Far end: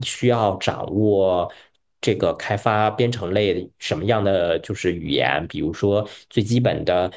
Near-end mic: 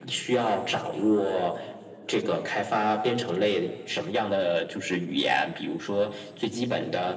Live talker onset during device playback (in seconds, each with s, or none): none